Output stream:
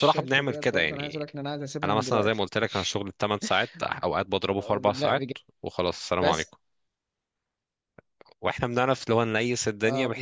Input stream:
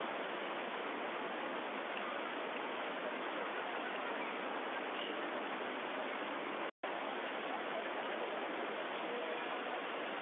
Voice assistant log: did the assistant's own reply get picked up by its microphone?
No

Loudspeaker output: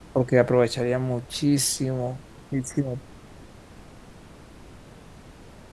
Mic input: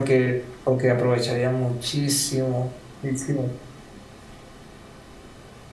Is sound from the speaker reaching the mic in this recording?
Yes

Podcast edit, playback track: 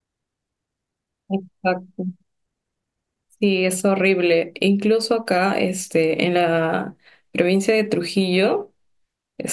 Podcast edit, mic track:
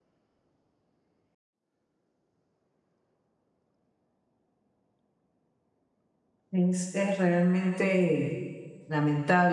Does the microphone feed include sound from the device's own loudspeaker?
No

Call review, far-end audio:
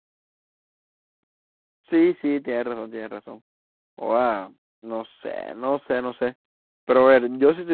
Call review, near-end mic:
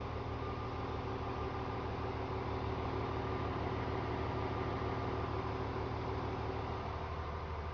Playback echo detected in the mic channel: No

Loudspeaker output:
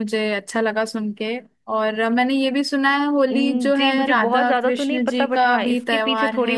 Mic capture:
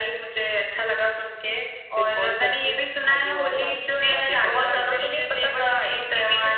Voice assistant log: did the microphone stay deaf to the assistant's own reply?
No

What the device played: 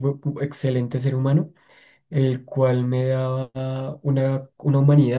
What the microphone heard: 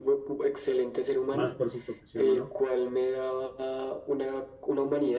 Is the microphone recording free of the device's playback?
No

